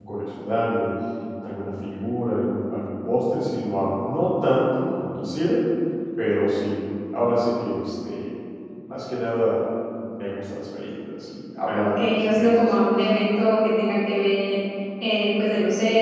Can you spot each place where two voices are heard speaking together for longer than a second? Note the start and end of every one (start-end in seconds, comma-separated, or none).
11.7-12.9